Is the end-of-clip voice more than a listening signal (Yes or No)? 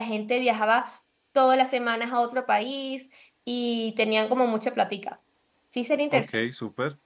Yes